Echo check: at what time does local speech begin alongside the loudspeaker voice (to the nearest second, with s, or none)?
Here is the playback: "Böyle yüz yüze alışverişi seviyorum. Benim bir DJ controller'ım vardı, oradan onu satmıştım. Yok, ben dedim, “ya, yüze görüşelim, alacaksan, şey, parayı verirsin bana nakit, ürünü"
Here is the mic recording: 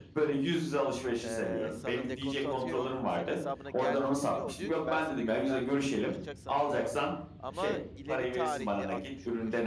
1 s